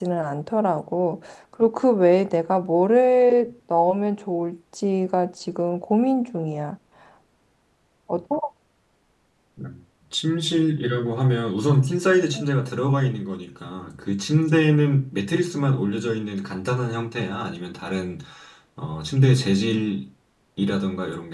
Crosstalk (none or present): none